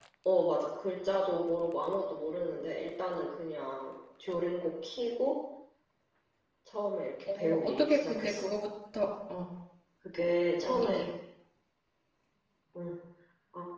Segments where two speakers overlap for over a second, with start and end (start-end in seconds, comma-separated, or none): 7.3-8.5